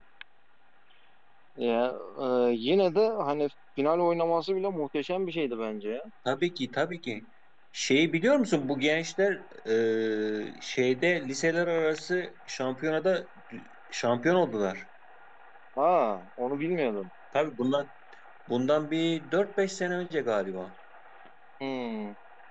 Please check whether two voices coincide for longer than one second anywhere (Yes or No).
No